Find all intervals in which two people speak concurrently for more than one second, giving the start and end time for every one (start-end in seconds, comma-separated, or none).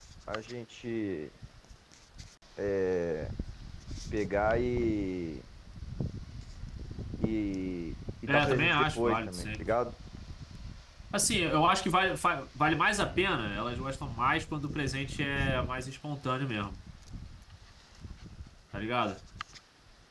8.3-9.6